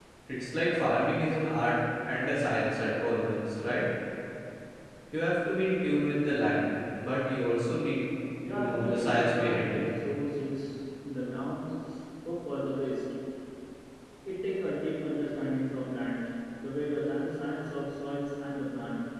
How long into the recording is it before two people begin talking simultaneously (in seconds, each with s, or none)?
8.5 s